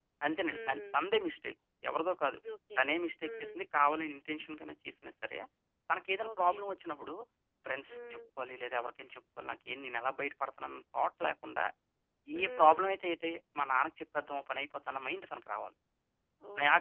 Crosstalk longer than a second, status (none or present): none